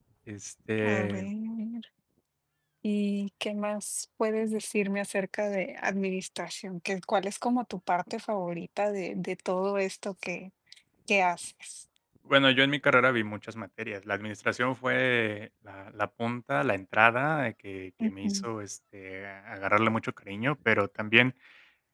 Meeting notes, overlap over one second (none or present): none